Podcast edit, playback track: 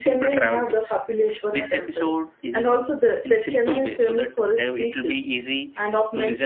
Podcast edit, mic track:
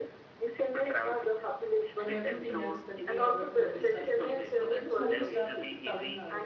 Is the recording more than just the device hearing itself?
Yes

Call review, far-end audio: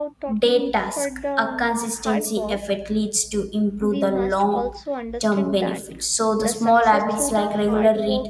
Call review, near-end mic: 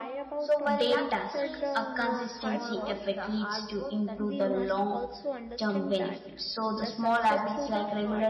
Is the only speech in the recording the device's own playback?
No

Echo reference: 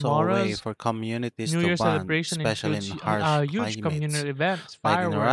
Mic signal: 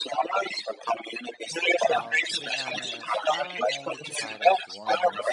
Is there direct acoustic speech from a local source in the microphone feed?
Yes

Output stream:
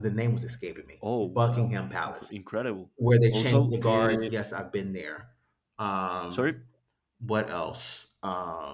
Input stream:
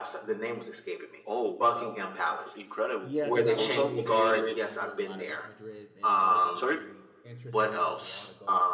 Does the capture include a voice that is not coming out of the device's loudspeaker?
Yes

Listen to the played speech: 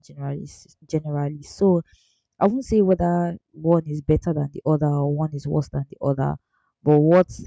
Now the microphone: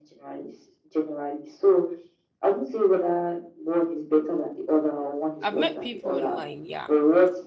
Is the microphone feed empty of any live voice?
No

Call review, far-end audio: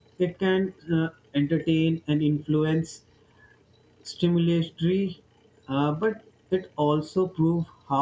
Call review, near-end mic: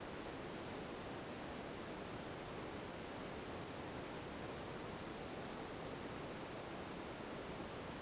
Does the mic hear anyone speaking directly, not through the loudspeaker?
No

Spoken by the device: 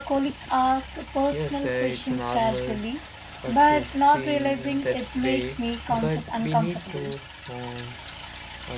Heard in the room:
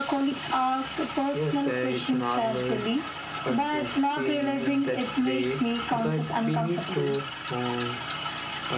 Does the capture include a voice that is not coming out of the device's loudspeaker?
No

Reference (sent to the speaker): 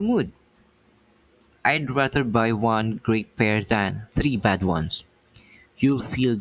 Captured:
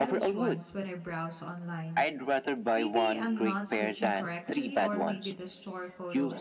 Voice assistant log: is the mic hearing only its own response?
No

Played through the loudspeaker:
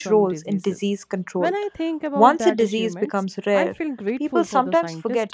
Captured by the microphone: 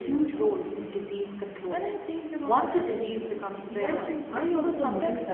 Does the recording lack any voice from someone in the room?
No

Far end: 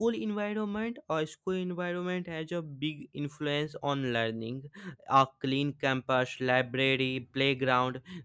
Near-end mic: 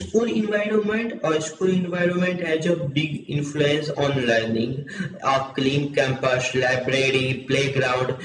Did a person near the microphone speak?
No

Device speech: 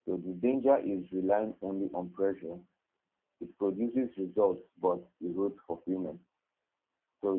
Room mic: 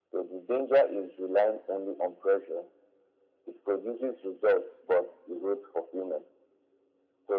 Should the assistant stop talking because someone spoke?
No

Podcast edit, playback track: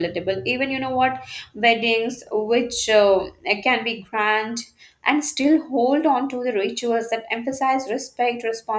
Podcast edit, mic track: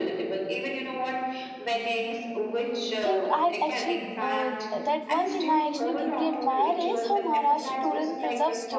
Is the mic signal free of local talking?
No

